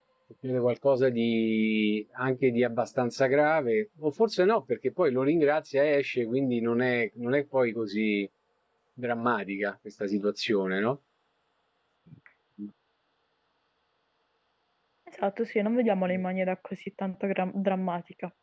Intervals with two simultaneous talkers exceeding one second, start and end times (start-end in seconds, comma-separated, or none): none